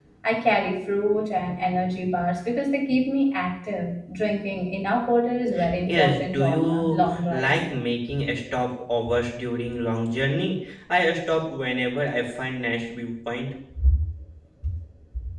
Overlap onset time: 5.9 s

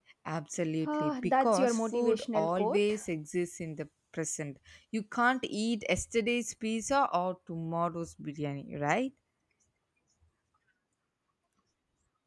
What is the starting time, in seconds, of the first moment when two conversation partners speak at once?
0.8 s

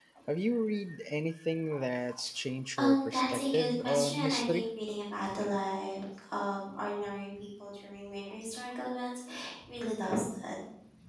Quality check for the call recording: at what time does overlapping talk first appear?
2.8 s

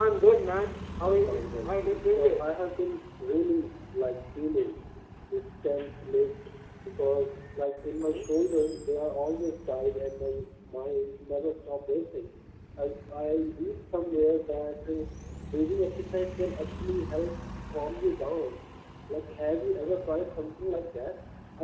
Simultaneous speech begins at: 1.1 s

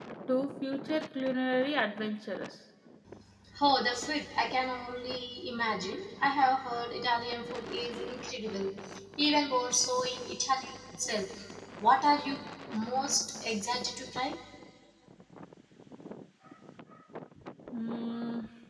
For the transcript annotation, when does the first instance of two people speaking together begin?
none

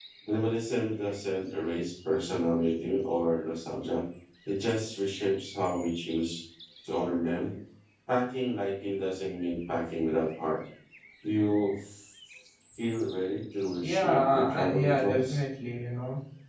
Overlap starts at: 13.8 s

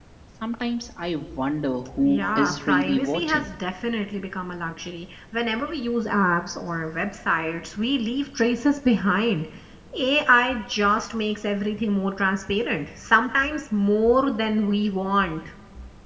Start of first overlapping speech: 2.0 s

